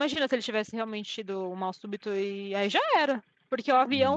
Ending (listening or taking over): listening